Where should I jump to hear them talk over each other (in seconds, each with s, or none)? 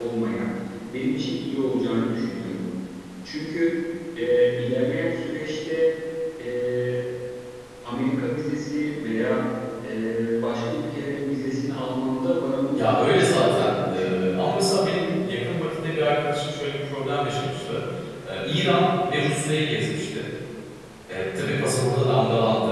12.8 s